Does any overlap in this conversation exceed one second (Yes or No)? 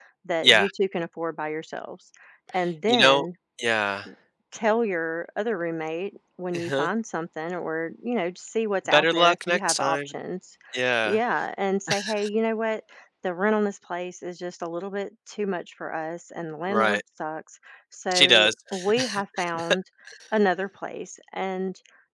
Yes